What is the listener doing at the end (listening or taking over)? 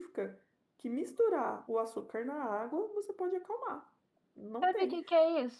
taking over